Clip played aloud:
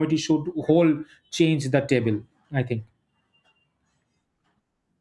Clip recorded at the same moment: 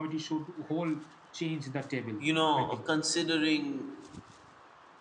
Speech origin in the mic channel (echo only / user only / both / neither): both